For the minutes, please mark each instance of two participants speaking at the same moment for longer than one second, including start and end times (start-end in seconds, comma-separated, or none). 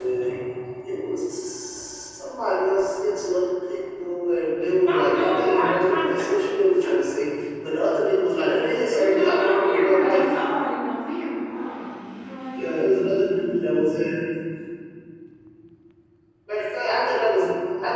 4.9-6.1, 9.0-10.3, 12.6-13.8